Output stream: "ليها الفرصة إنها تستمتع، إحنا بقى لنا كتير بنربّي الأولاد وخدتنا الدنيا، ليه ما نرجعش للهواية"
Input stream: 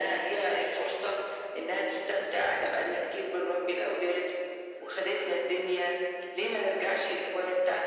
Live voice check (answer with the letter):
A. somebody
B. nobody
B